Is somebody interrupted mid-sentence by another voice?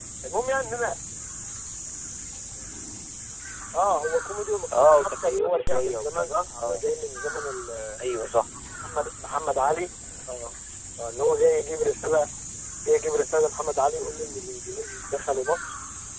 Yes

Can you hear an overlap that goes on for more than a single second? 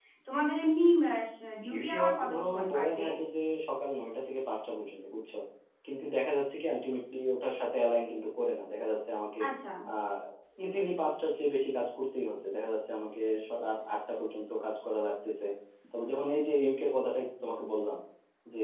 Yes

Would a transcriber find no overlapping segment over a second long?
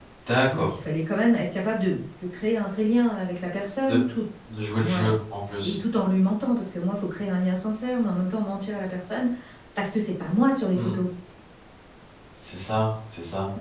Yes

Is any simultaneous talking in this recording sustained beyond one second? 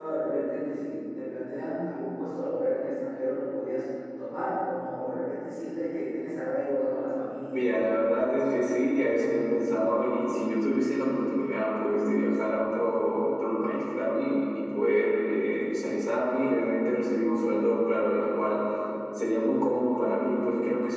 Yes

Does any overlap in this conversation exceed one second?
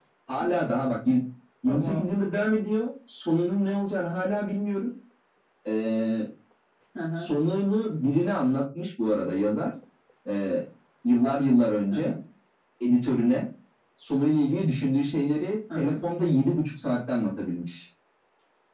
No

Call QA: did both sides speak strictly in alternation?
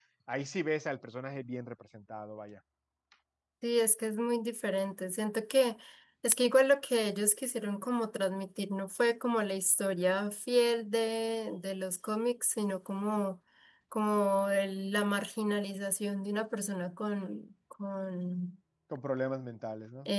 Yes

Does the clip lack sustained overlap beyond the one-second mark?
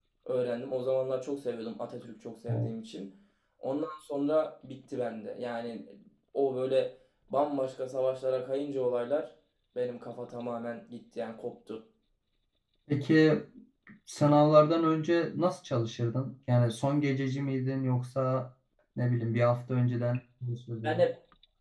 Yes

